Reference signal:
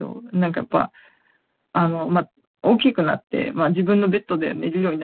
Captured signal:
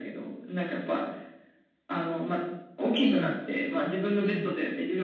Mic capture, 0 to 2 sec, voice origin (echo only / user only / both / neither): echo only